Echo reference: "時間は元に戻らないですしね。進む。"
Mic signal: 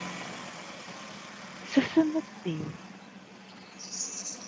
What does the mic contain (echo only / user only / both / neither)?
user only